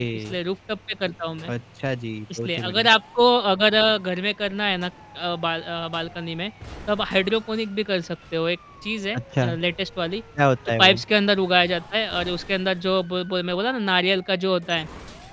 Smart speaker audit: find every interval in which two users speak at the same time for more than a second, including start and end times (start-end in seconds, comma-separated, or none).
none